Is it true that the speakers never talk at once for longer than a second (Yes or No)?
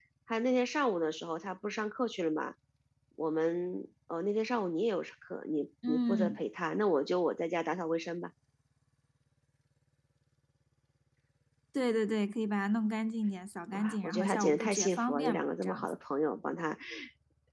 No